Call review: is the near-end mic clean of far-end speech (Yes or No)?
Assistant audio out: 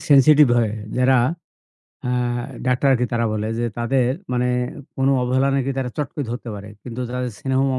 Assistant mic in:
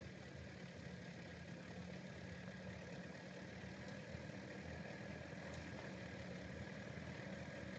Yes